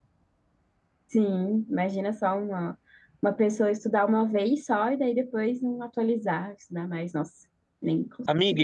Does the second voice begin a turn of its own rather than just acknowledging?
Yes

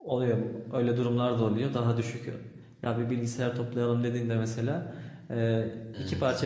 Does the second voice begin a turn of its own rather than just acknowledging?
No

